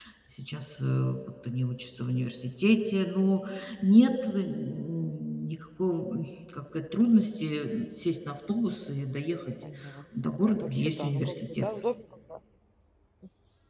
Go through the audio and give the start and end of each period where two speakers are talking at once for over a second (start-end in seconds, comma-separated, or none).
10.2-11.7